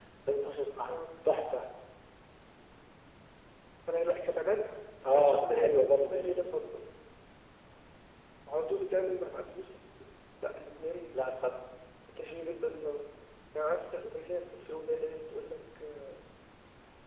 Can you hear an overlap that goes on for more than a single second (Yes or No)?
Yes